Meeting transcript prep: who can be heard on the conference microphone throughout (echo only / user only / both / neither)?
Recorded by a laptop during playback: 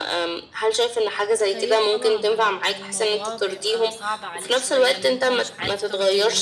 both